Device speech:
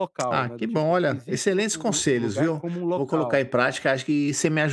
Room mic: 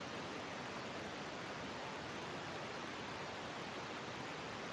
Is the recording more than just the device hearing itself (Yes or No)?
No